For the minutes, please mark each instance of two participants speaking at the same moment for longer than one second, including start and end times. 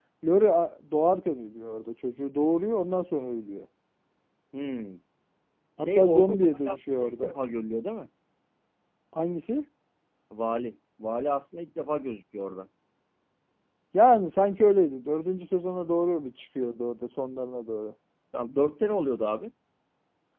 5.8-7.3

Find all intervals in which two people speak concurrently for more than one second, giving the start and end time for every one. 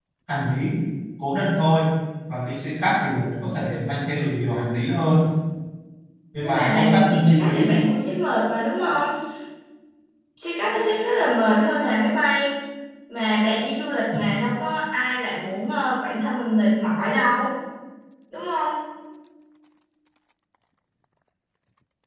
6.4-7.7

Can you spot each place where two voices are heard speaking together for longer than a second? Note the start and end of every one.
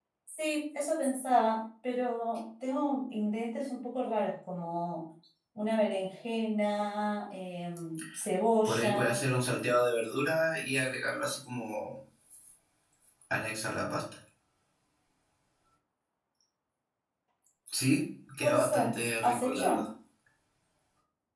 18.4-19.9

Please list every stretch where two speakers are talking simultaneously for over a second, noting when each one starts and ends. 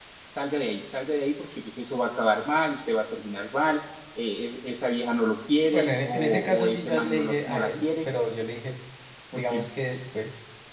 5.7-8.1

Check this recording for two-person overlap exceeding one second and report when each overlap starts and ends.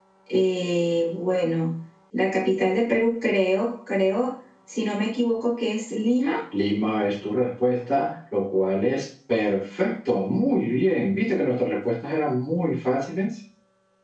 none

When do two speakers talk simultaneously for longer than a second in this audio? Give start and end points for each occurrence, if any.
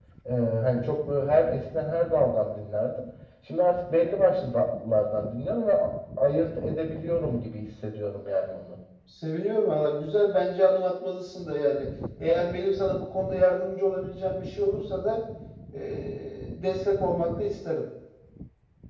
none

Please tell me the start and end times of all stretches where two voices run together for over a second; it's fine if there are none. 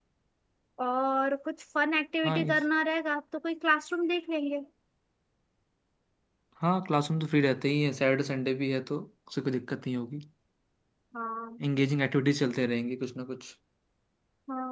none

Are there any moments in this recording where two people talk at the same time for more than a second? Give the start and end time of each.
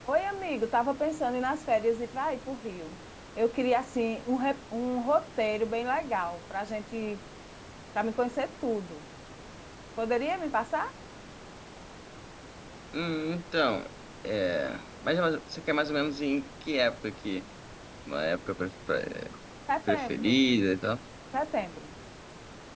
none

